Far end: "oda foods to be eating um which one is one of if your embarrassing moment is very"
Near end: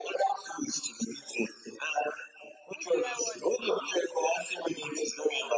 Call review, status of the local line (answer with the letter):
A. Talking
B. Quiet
A